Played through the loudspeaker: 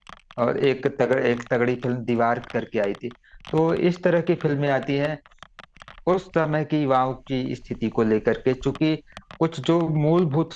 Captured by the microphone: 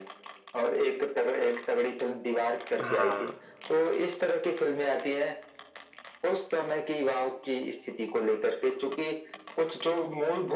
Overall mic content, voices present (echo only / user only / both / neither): both